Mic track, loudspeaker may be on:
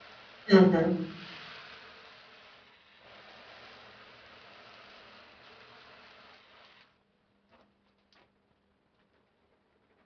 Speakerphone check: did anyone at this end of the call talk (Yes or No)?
Yes